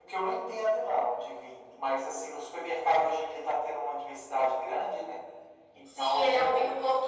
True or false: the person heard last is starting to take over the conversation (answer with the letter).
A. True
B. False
A